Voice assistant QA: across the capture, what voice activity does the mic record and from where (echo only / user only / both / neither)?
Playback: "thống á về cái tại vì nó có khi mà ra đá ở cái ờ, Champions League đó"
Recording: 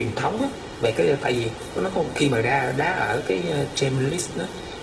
echo only